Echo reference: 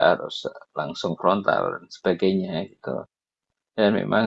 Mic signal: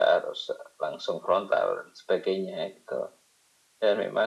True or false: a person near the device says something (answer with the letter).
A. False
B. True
A